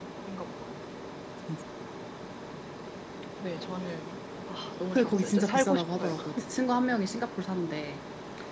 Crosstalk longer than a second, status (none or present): present